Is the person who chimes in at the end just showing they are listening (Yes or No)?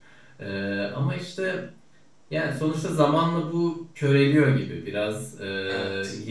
Yes